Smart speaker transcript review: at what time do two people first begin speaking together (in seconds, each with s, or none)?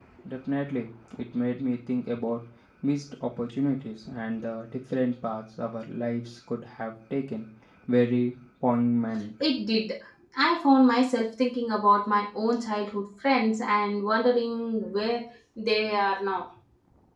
none